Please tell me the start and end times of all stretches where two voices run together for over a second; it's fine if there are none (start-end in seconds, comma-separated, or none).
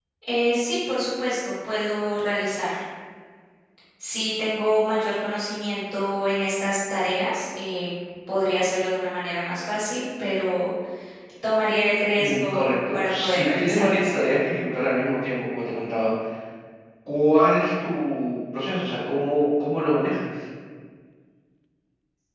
12.2-14.0